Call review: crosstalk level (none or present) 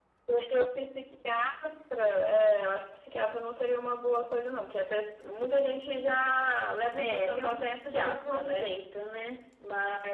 present